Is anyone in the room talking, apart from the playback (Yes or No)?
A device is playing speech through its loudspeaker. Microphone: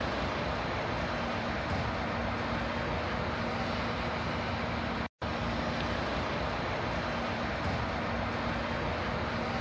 No